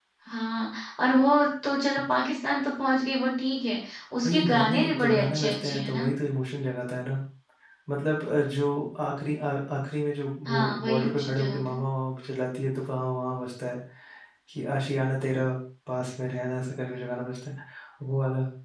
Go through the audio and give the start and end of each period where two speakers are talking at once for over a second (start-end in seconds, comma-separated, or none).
4.2-6.1, 10.4-11.8